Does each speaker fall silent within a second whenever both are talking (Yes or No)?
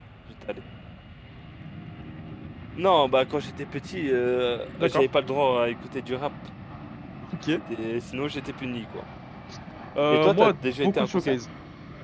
No